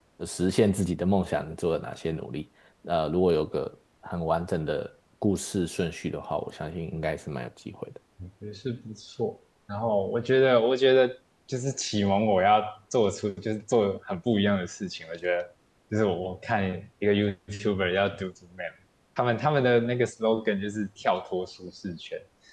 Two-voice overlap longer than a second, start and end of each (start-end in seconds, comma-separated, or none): none